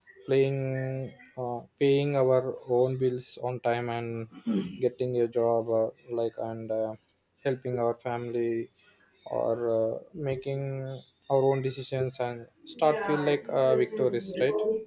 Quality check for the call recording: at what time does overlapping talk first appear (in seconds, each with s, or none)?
12.6 s